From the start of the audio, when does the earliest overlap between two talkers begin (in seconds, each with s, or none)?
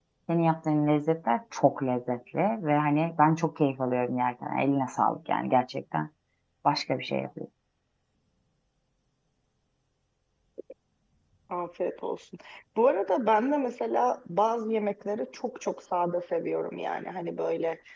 none